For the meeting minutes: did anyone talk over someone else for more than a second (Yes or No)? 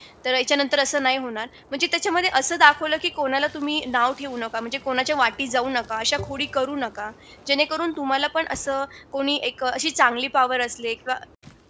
No